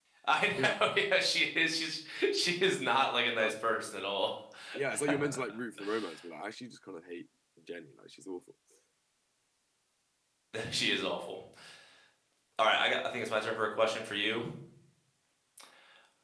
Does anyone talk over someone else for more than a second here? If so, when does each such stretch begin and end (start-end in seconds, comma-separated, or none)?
none